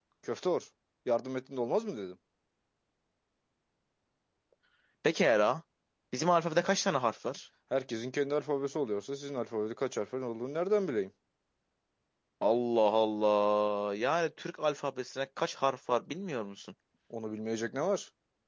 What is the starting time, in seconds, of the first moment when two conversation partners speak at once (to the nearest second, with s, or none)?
none